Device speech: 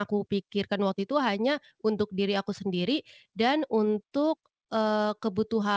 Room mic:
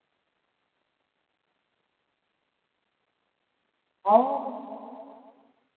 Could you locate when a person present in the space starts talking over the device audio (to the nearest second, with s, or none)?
4 s